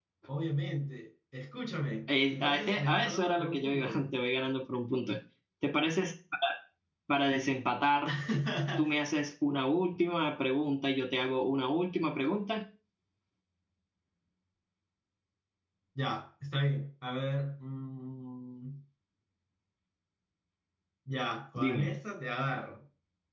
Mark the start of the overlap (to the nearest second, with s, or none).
2 s